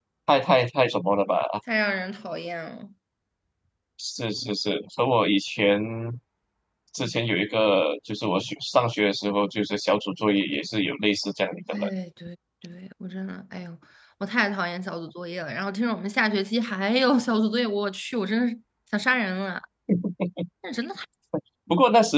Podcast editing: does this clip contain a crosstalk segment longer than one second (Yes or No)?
No